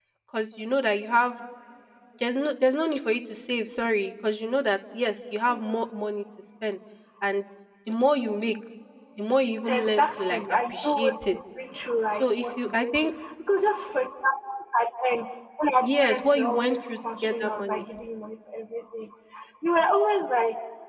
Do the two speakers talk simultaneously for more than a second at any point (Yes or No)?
Yes